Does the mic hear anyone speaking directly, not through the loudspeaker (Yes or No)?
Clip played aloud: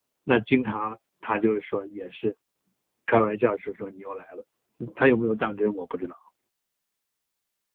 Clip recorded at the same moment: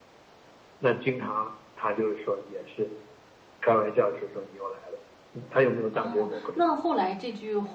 Yes